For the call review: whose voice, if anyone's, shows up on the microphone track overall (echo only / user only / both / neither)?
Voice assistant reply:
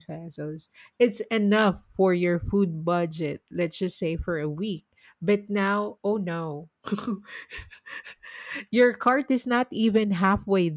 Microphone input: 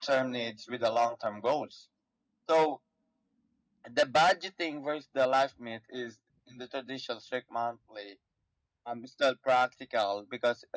user only